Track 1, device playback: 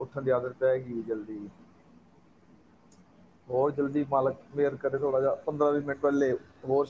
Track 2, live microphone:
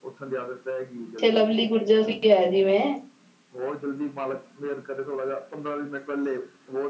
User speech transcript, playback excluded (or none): ਇੱਛੇ ਲਵਲੀ ਗੁਰਜਰ ਵੀ ਹੈ ਜਿਵੇਂ